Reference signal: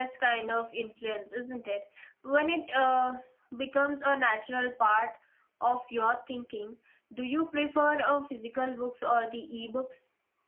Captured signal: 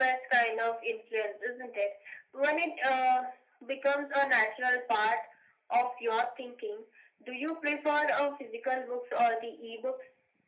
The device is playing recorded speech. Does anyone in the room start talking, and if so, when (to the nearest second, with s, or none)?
none